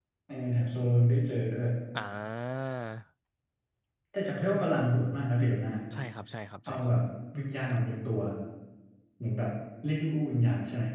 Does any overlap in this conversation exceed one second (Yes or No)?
No